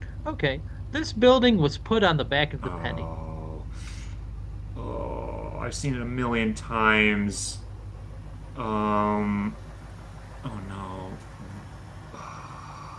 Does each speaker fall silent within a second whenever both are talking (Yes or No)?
Yes